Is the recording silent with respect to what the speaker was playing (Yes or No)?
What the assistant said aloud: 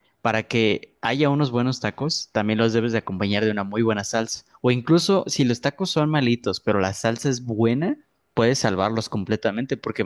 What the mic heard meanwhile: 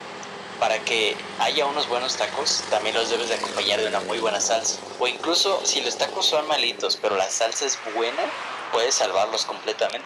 No